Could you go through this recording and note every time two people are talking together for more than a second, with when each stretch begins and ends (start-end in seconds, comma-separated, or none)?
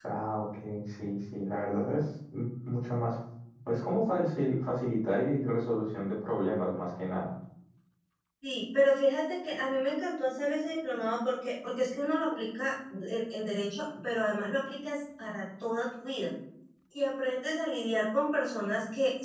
none